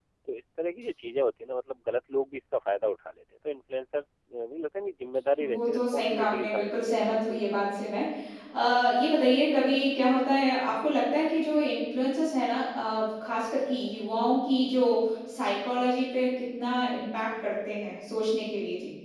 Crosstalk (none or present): present